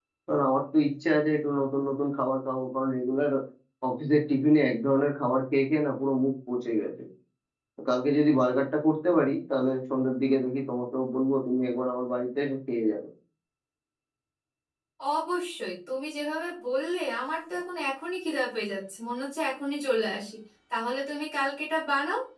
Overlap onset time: none

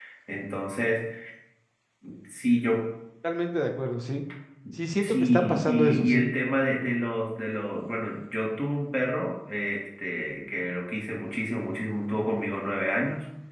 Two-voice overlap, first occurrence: 5.0 s

